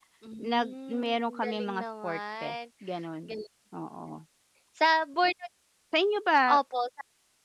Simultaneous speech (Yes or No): Yes